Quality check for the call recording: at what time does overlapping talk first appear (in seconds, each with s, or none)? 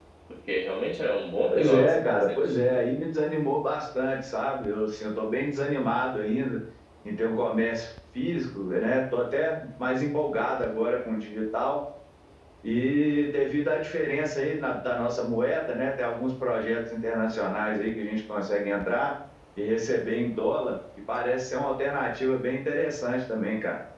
1.5 s